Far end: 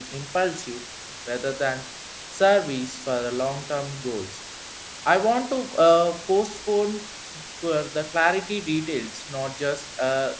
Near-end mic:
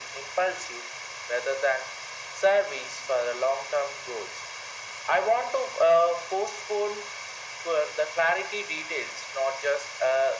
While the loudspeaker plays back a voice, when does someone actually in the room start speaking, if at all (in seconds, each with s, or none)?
none